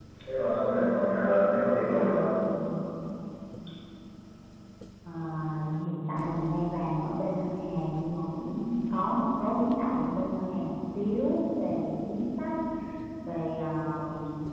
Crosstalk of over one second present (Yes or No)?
No